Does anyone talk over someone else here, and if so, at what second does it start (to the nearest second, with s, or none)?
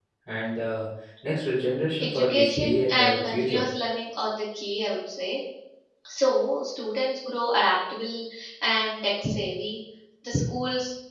2 s